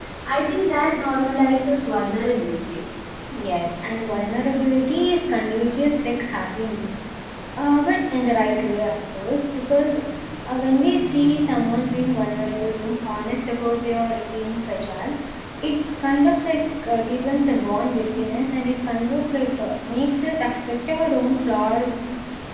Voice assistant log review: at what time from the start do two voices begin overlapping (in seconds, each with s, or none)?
none